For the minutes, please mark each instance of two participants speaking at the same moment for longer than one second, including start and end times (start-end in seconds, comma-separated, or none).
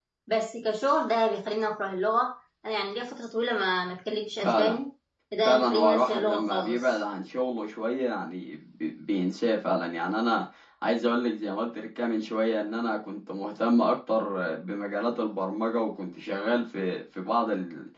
5.4-6.9